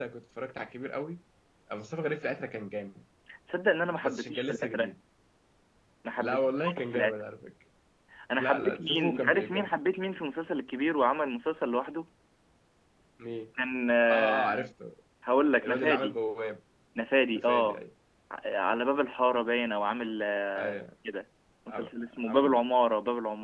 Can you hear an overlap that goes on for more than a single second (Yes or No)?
Yes